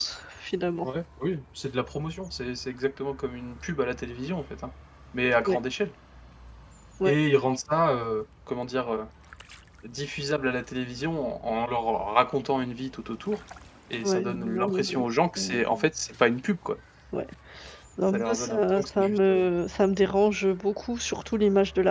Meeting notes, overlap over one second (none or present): present